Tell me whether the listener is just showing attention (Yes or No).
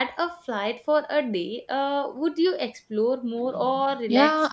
No